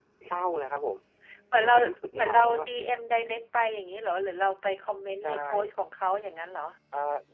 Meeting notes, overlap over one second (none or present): none